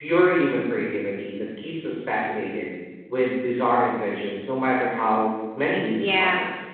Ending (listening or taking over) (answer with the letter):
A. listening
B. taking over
B